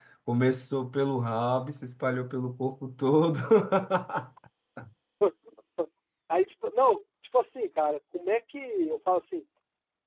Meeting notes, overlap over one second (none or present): none